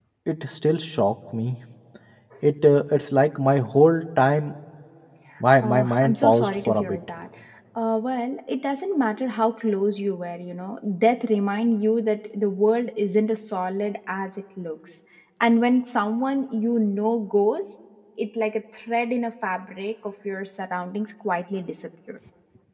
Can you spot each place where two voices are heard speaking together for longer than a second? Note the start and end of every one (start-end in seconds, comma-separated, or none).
5.6-7.0